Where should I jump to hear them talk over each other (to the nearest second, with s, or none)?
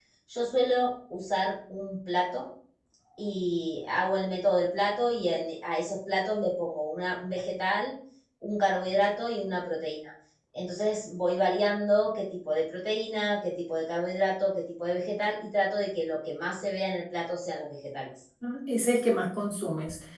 none